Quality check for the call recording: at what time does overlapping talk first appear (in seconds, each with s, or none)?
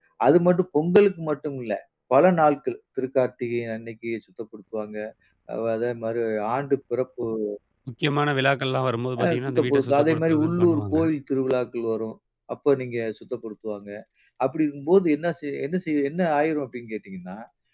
9.2 s